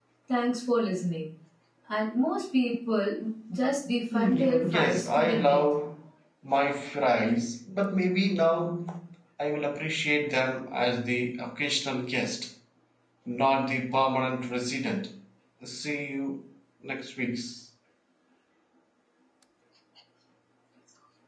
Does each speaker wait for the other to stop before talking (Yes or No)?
No